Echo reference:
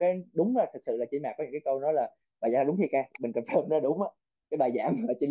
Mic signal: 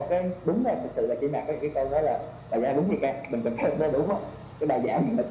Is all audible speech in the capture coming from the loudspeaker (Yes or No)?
Yes